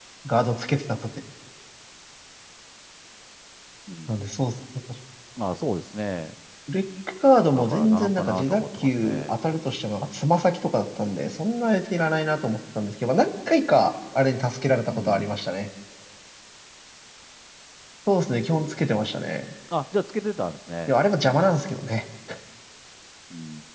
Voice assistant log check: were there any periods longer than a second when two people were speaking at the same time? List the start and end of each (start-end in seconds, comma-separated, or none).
7.5-9.3